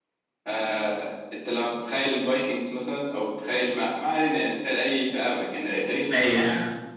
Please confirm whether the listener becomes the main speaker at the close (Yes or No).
No